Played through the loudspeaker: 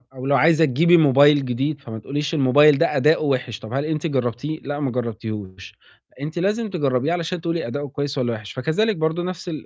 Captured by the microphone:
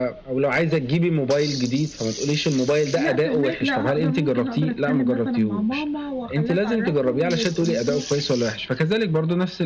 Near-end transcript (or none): لأ، فاهماك. لأ، هاقد ممكن أقدر أتكلِّم مثلًا مع ماما وأخلّيها تعرّفهم وتقول